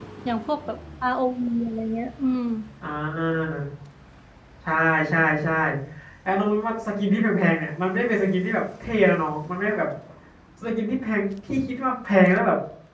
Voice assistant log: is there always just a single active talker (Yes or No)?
Yes